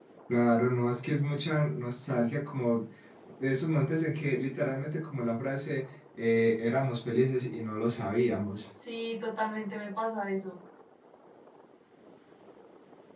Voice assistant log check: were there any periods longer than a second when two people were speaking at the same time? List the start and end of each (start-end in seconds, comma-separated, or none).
none